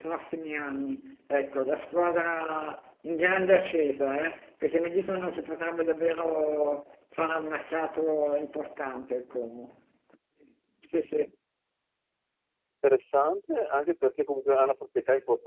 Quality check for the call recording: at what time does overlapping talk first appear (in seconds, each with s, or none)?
none